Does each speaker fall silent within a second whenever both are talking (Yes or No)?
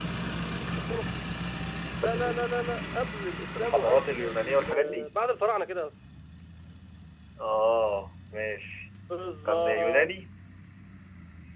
No